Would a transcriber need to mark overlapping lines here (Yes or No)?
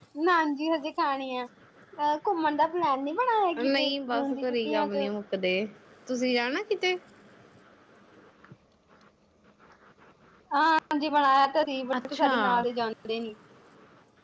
Yes